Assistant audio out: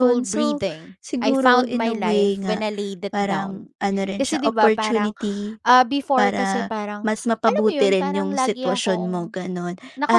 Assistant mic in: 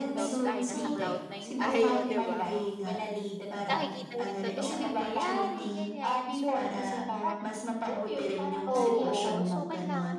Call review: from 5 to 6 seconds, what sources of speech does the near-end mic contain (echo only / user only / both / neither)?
both